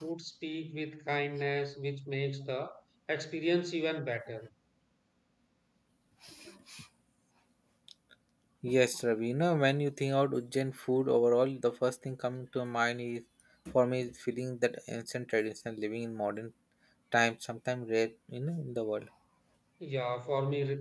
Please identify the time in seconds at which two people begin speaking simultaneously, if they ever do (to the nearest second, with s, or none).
none